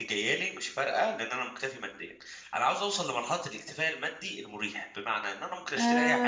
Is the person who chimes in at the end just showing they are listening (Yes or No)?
No